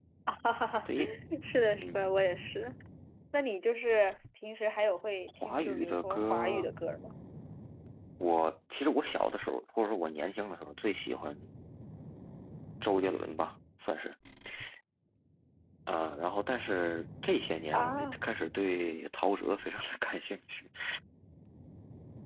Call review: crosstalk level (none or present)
present